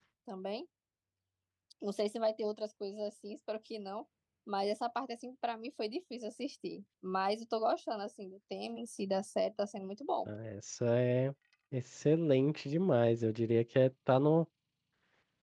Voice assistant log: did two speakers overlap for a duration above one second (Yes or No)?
No